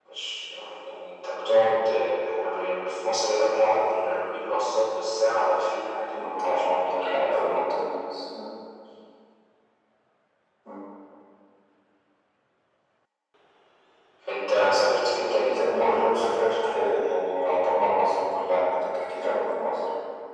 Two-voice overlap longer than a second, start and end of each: 6.1-7.6, 15.1-16.7

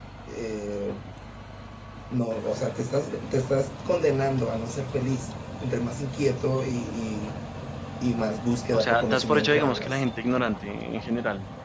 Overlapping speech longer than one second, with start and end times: 8.7-10.0

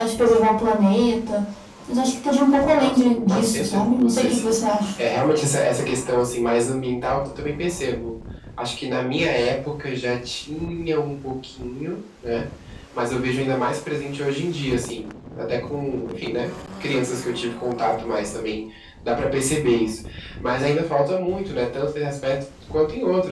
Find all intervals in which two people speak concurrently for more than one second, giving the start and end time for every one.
2.8-4.5

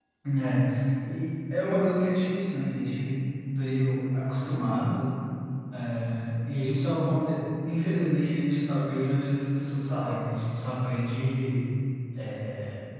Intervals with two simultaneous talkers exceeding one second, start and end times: none

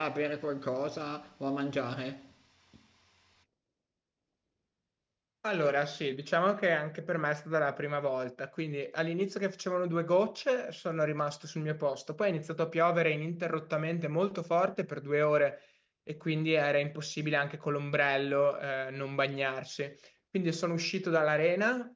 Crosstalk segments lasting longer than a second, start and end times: none

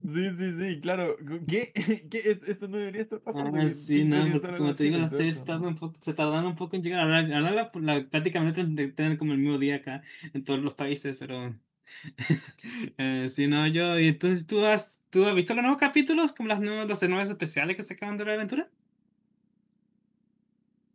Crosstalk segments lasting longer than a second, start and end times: 3.3-5.7

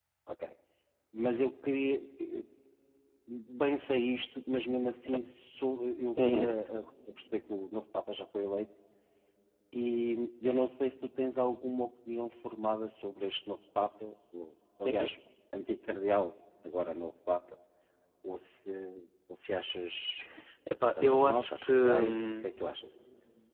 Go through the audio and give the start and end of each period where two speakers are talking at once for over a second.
21.0-22.5

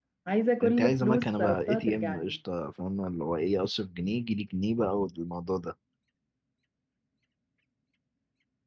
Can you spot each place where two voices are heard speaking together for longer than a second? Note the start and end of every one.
0.6-2.4

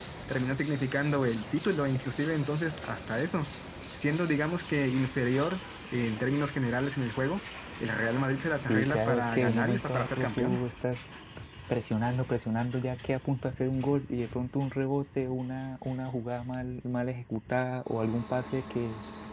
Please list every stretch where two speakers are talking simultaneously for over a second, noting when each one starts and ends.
8.6-10.6

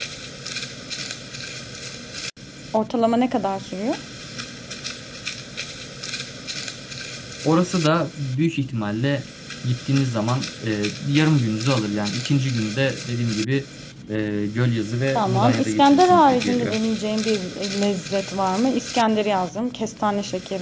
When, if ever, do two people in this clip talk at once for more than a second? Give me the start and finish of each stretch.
15.2-16.8

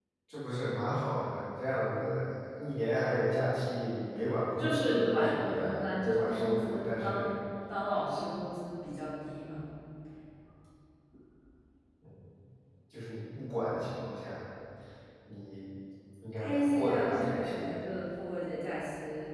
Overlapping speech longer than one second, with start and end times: 4.6-7.4, 16.4-17.7

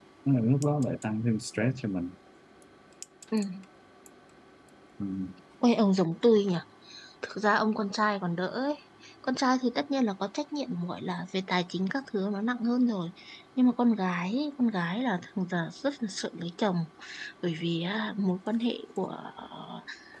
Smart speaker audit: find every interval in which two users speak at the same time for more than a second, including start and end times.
none

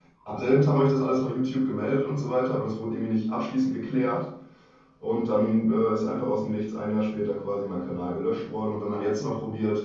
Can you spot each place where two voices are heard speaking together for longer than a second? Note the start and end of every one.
none

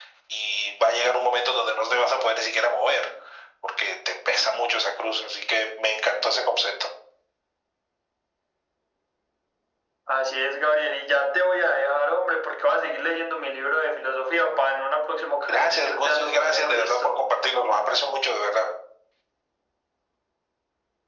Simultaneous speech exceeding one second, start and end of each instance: 15.5-17.2

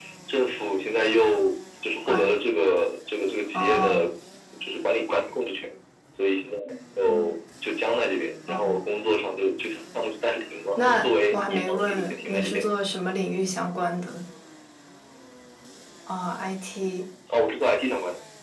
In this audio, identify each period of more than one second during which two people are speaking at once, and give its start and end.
10.8-12.6

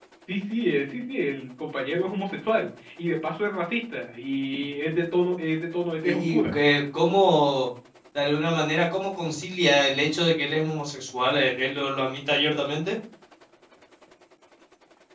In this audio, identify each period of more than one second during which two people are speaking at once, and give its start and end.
none

